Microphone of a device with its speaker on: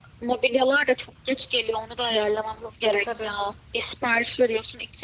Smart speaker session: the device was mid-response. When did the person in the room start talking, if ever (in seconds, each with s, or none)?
2.9 s